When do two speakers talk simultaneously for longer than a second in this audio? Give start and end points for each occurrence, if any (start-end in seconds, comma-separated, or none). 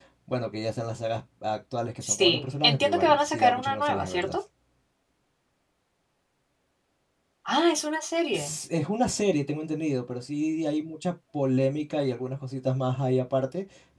2.0-4.4